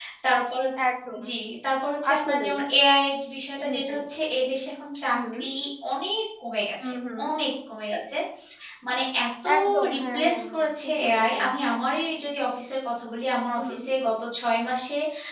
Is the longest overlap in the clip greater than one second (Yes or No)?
Yes